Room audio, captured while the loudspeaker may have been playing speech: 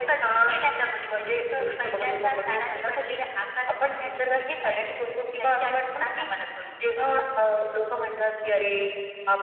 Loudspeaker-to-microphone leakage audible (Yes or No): Yes